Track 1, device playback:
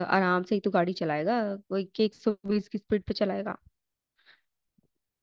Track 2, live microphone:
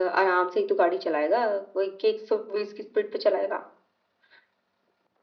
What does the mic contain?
echo only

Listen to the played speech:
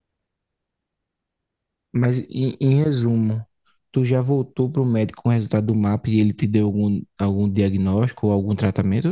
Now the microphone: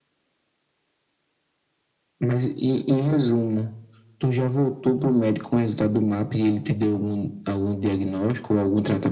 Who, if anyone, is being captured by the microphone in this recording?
echo only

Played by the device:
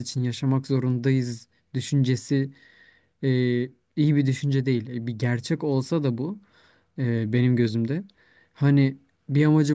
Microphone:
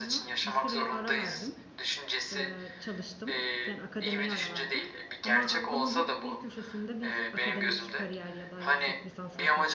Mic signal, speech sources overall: both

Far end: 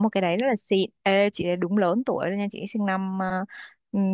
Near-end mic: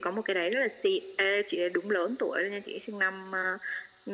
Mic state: echo only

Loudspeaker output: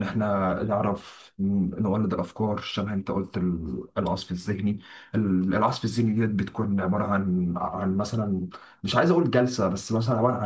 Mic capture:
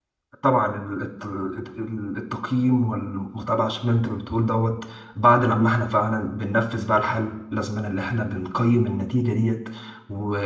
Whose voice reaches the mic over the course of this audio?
user only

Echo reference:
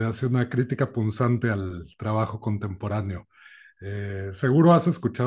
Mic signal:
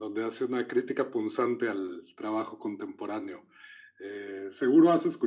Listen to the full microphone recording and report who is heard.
echo only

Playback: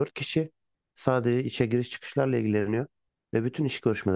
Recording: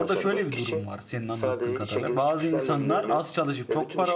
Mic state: both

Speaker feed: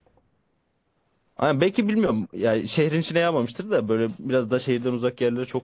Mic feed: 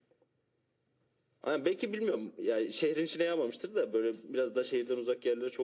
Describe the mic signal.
echo only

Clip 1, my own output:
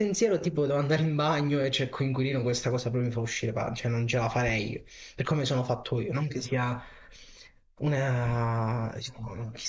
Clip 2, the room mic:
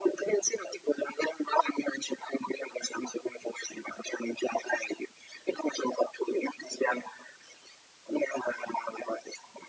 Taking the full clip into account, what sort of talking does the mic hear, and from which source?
echo only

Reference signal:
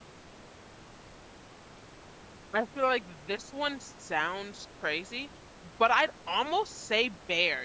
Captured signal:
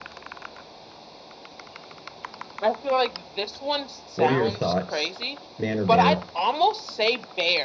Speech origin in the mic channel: both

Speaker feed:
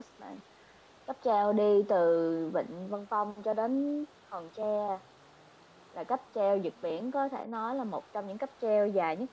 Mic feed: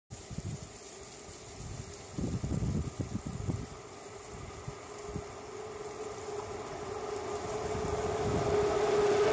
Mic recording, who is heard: neither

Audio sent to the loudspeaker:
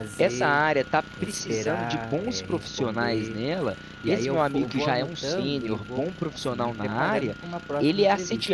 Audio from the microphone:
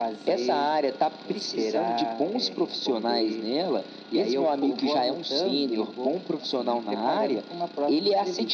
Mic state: echo only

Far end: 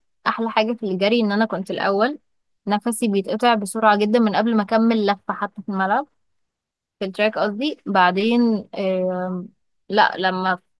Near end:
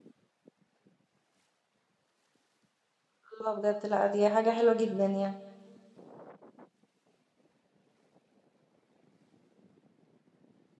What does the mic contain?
user only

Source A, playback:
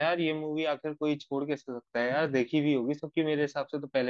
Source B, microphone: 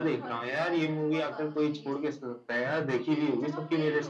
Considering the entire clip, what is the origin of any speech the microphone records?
both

